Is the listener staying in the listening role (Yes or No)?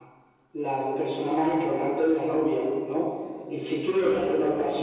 Yes